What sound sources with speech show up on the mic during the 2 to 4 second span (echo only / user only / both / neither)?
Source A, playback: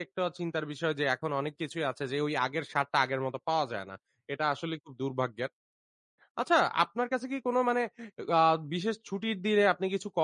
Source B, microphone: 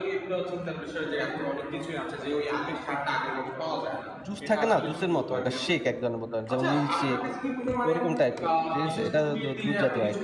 echo only